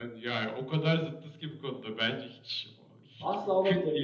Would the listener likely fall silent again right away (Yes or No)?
No